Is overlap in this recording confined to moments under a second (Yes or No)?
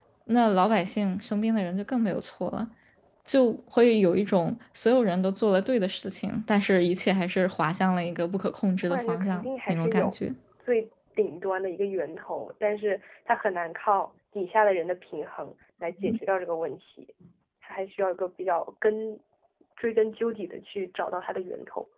No